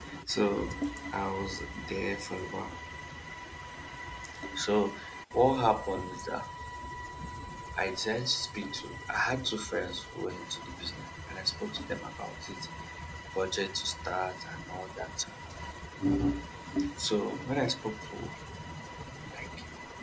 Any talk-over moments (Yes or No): No